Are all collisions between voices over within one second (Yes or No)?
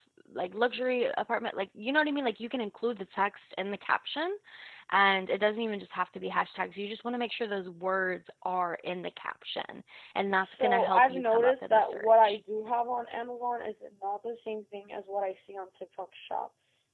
No